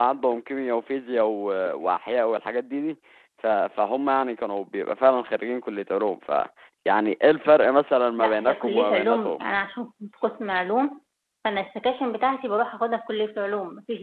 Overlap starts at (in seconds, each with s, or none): 8.2 s